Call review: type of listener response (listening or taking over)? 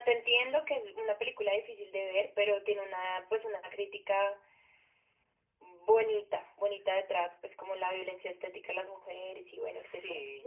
taking over